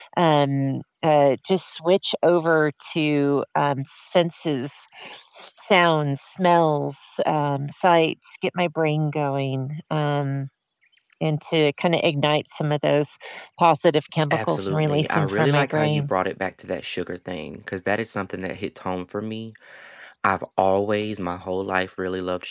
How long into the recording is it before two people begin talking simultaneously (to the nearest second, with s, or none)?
14 s